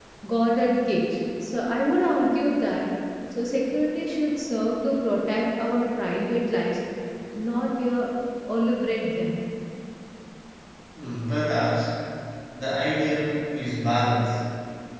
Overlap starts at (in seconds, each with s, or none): none